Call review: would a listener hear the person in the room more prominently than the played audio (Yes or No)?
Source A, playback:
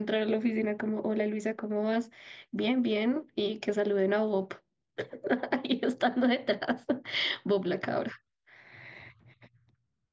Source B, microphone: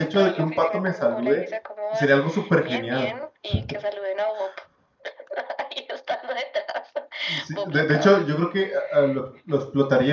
Yes